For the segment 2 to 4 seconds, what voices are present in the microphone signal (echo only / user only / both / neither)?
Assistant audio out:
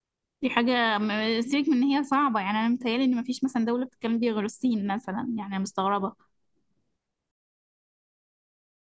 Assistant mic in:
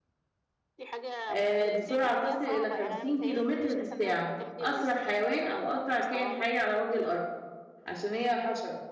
both